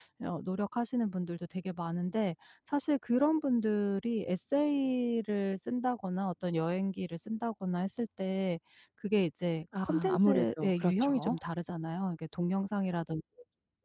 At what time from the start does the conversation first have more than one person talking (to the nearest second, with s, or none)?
10 s